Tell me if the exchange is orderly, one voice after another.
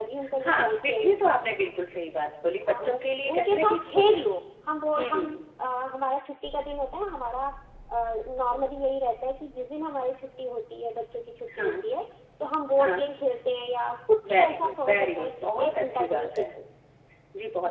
No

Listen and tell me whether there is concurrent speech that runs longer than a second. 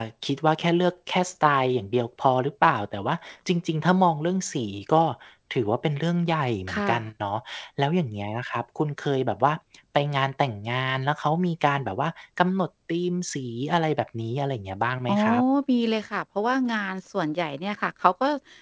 No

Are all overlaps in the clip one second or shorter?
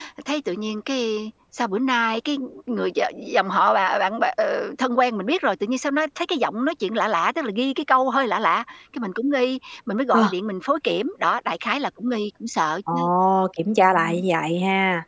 Yes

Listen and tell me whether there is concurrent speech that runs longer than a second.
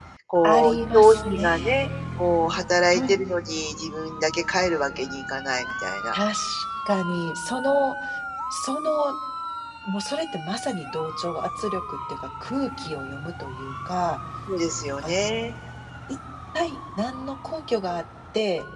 Yes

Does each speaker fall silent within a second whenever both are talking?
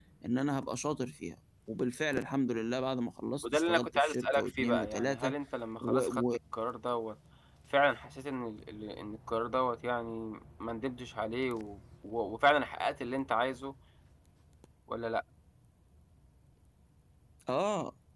No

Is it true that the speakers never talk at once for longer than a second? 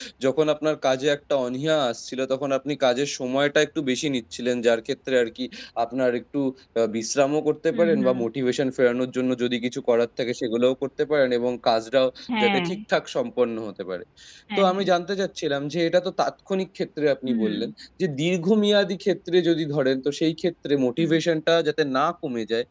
Yes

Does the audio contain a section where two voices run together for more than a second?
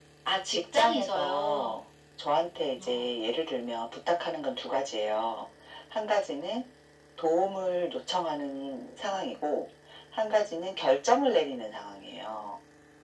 Yes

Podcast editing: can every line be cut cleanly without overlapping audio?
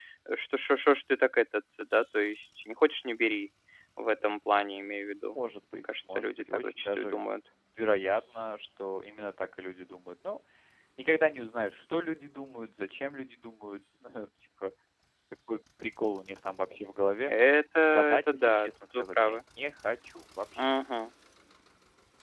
No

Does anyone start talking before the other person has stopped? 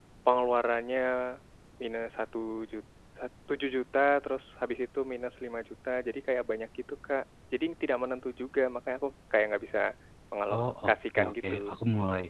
Yes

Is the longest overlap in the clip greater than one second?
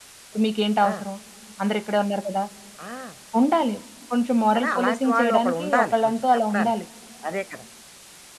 Yes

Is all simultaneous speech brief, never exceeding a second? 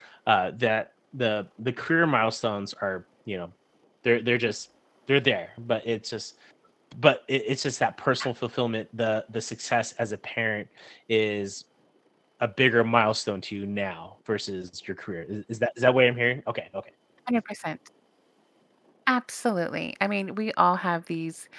Yes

